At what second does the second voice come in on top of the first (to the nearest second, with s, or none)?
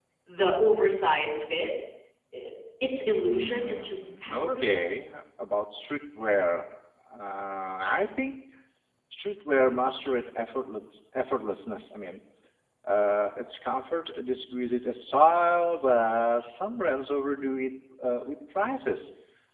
3 s